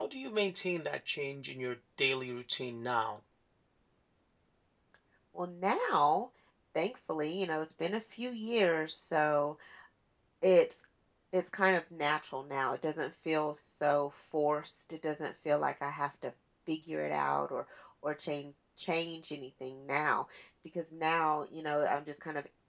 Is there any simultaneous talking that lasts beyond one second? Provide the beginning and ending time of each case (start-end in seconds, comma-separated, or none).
none